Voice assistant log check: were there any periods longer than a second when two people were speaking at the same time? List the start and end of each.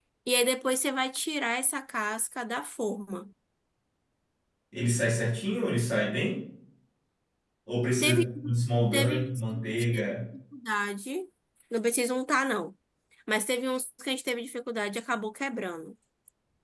8.9-10.1

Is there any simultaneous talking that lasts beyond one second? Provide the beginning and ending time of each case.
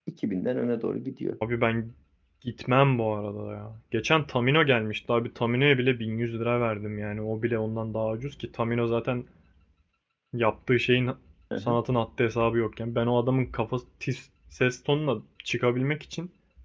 none

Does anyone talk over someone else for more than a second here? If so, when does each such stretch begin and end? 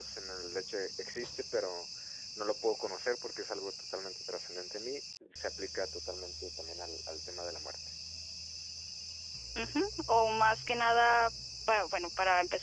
none

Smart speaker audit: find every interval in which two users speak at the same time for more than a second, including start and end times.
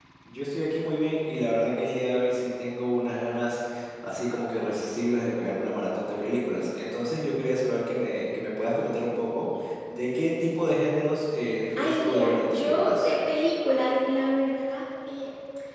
11.8-13.1

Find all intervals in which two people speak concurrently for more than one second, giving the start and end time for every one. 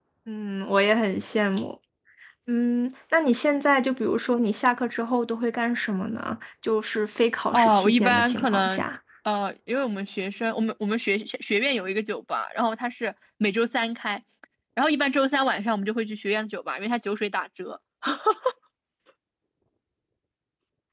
7.5-8.8

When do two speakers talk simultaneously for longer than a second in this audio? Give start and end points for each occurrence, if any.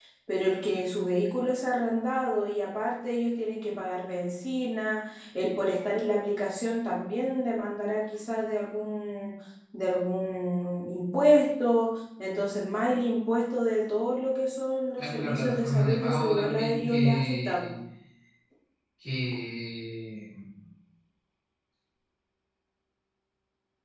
15.0-17.8

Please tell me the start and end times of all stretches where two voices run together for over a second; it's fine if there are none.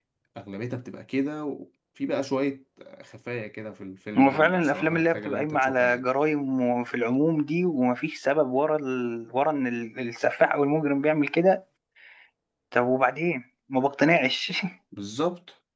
4.2-6.0

